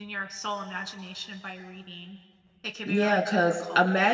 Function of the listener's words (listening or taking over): taking over